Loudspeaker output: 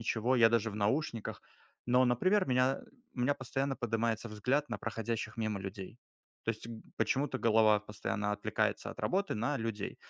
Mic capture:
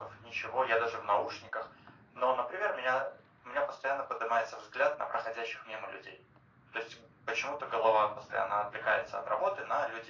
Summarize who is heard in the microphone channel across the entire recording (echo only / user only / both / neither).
echo only